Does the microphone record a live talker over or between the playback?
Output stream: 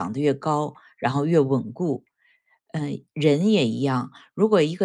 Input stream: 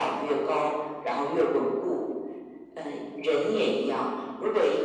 No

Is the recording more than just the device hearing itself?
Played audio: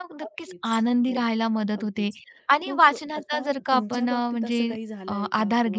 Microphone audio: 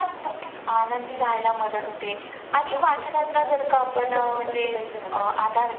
No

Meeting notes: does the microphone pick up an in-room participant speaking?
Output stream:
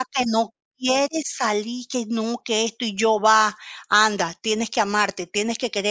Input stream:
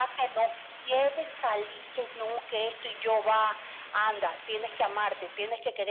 No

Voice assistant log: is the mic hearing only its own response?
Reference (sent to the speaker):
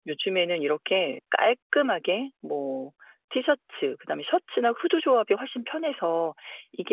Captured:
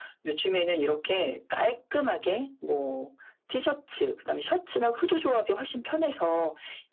Yes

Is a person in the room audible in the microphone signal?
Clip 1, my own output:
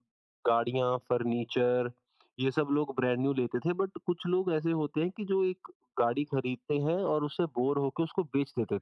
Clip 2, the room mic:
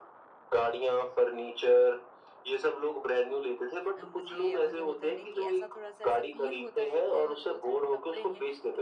Yes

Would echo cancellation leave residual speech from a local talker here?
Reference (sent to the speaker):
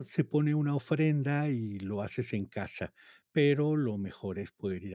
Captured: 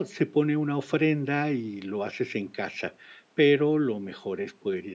No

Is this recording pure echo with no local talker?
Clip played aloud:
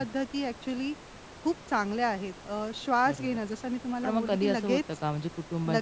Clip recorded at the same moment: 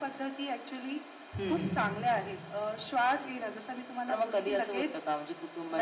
No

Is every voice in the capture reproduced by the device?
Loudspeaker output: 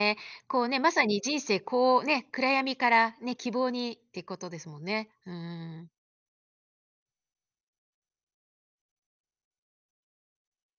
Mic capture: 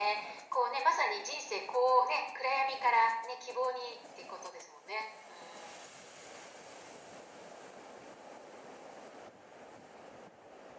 Yes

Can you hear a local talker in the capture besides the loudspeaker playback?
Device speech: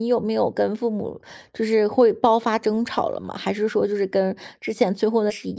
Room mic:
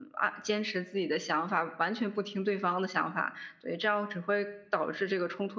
Yes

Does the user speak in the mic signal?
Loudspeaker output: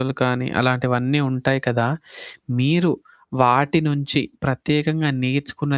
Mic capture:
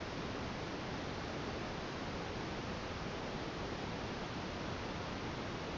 No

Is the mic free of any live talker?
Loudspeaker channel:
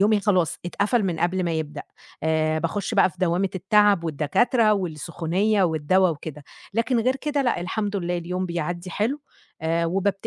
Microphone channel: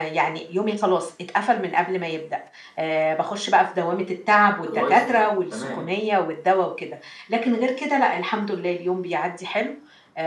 No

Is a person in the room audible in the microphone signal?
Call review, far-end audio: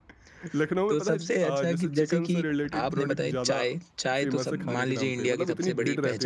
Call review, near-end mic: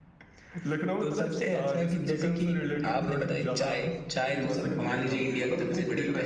No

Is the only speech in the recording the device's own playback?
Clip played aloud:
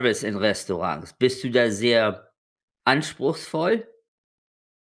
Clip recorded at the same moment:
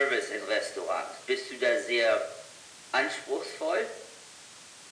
Yes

